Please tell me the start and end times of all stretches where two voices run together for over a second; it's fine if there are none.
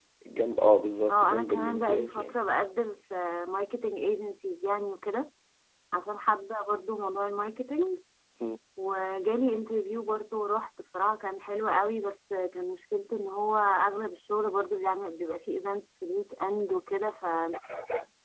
1.1-2.4

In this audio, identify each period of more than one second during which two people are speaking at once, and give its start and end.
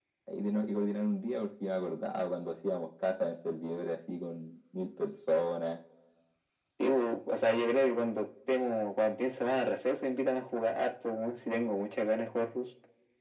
none

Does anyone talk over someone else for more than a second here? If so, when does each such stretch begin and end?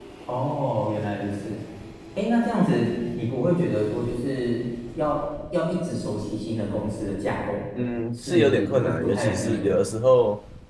8.1-9.9

